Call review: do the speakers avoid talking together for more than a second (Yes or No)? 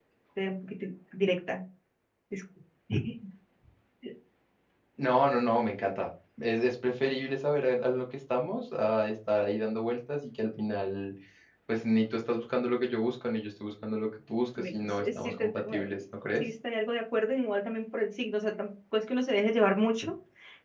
No